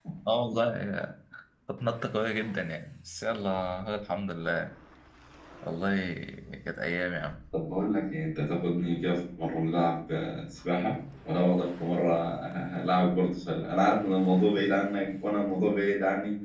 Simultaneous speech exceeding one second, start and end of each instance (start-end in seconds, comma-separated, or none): none